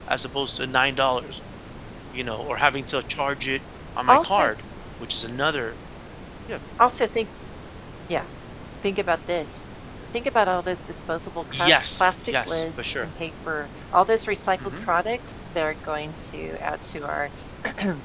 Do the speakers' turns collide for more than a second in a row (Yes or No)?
Yes